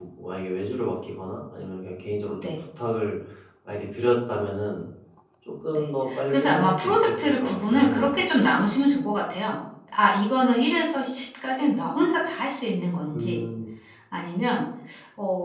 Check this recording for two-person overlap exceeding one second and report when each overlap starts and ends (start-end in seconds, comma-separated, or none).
5.8-8.2